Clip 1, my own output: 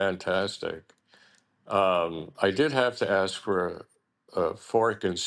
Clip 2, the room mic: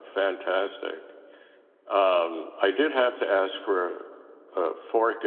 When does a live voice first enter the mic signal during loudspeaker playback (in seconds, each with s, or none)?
none